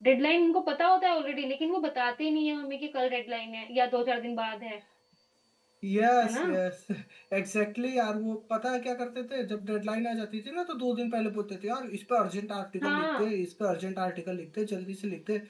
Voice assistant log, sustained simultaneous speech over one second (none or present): none